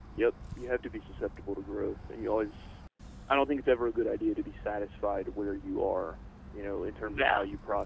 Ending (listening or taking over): listening